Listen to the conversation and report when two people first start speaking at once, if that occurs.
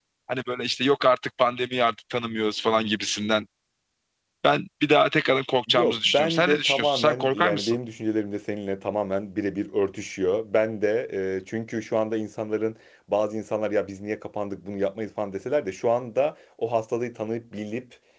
5.7 s

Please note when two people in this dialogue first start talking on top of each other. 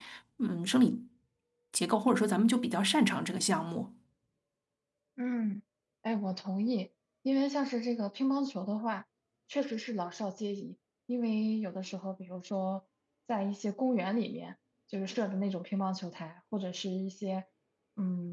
none

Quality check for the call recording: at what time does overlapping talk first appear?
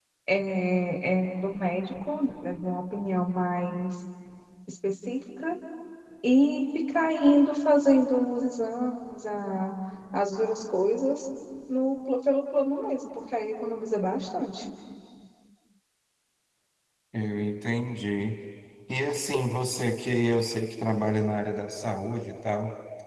none

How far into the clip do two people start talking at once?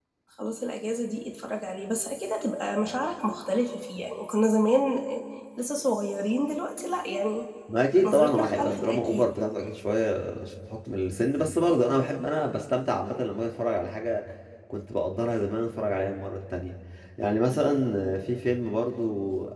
8.1 s

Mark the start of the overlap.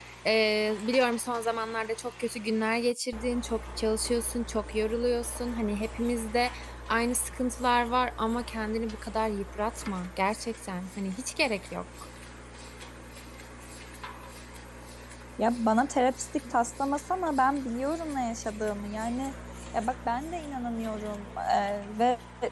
none

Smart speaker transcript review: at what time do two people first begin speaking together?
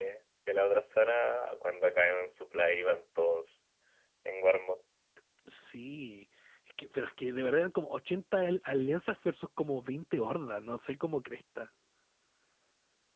none

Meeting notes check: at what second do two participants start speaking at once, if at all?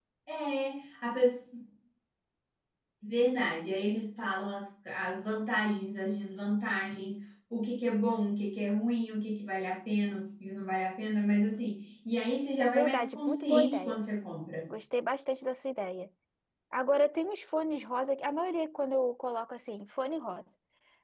12.6 s

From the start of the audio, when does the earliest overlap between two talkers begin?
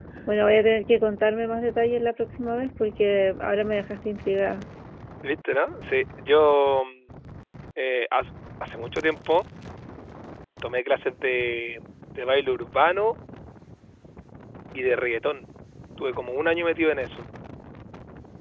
none

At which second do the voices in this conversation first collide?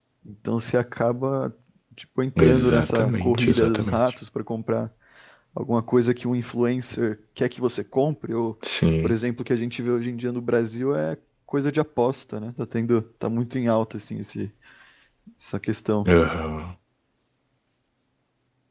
2.4 s

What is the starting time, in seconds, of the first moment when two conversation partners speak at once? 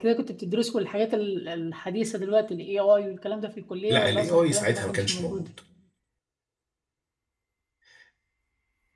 3.9 s

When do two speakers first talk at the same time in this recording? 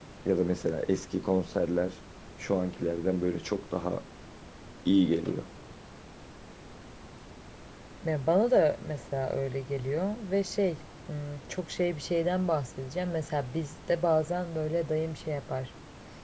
none

